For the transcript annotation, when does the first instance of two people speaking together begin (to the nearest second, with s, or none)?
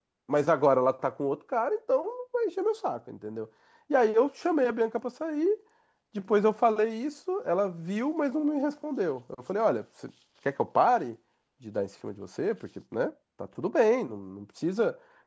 none